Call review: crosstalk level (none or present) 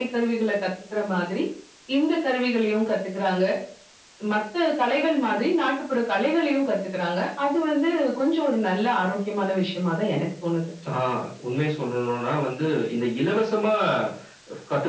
none